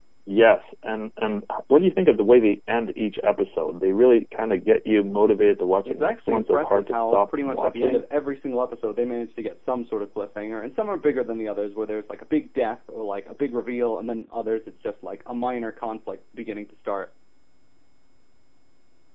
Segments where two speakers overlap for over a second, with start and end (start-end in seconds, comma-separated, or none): 5.8-8.0